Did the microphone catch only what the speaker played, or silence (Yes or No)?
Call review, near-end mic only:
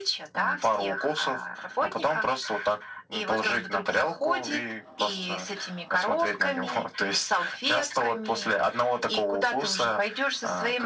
Yes